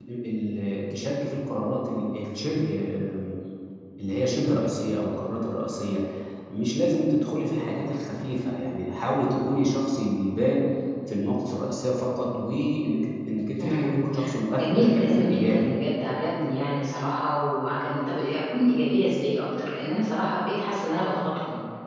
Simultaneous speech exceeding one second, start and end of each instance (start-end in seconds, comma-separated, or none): 14.5-15.7